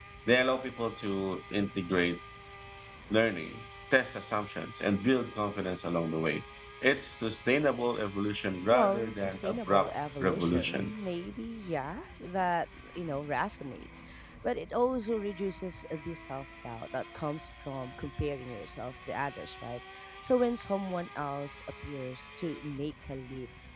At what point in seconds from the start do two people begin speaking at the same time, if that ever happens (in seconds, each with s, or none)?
8.7 s